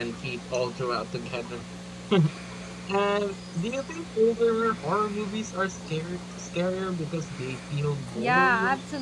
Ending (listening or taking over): taking over